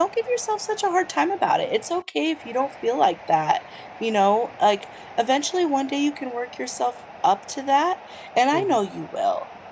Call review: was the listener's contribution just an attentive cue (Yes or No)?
Yes